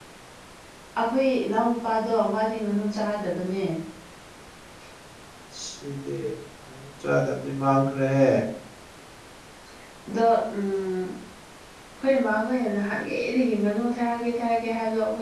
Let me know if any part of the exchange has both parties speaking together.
No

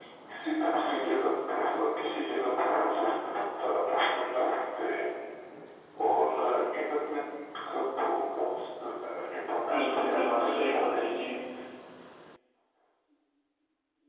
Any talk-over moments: Yes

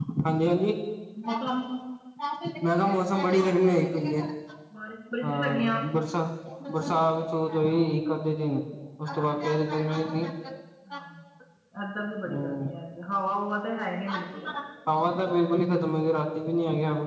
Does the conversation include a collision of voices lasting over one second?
No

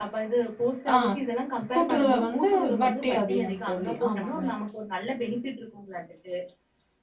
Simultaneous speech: Yes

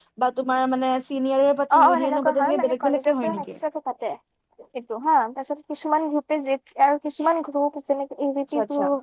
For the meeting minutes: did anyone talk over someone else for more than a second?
Yes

